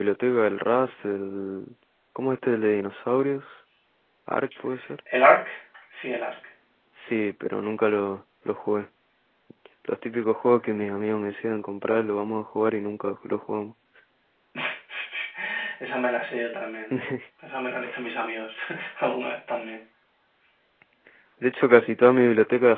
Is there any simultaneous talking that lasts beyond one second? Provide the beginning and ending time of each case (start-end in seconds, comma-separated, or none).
none